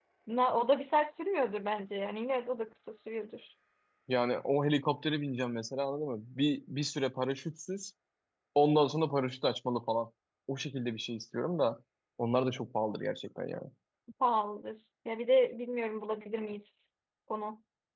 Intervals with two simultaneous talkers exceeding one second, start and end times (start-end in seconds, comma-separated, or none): none